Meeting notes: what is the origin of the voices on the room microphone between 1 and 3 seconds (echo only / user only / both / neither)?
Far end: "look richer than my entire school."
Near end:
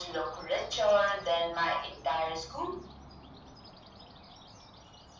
echo only